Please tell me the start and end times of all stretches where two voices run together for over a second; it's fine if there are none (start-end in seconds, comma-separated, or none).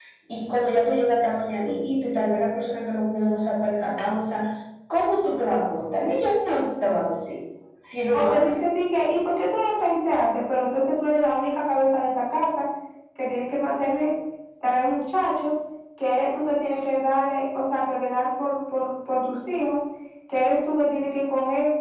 none